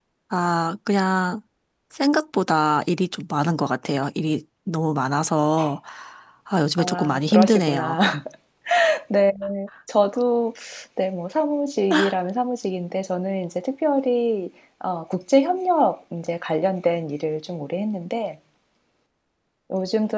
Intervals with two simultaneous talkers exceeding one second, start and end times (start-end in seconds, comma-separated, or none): 6.8-8.0